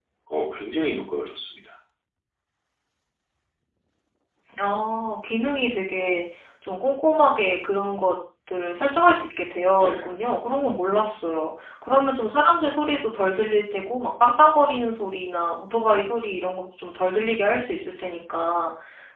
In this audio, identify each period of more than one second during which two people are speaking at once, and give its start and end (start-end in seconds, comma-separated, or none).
none